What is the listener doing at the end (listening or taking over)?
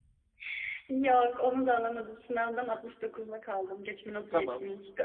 taking over